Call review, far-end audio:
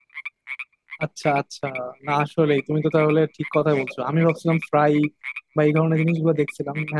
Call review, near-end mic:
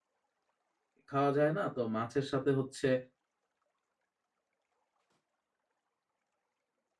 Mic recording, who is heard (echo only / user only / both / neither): user only